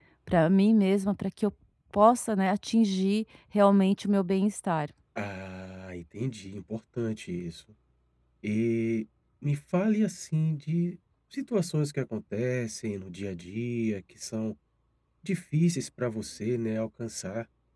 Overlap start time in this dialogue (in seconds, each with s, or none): none